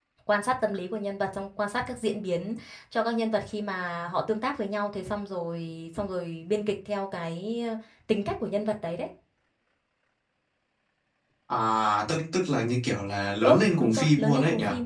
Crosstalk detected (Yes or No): Yes